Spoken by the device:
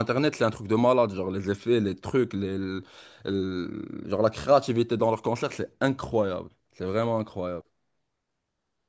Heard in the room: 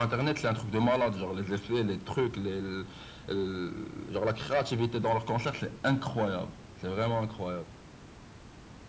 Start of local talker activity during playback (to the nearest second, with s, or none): none